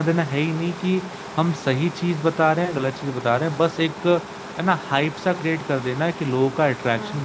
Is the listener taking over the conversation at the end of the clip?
No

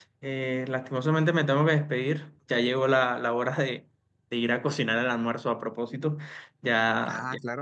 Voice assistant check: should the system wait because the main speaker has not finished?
Yes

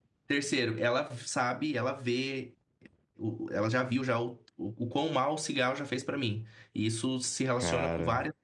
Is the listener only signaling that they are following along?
Yes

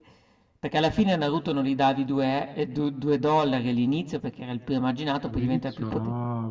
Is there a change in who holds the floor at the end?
Yes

